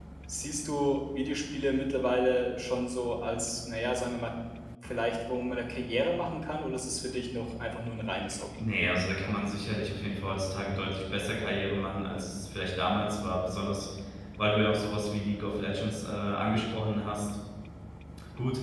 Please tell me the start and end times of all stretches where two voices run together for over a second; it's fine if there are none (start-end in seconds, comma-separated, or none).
none